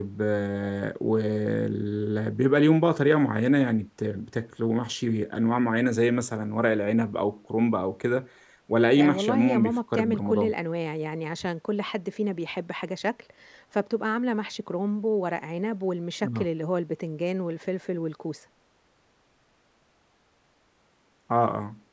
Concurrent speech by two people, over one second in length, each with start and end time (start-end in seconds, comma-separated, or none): 9.0-10.5